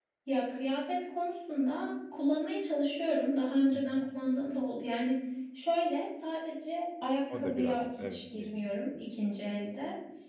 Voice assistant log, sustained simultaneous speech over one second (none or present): present